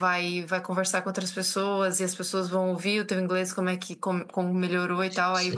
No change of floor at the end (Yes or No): Yes